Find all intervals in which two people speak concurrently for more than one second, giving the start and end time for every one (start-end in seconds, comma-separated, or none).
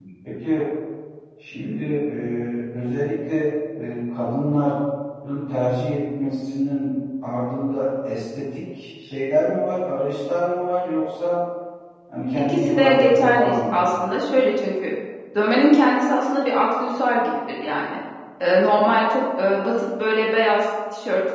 12.5-13.8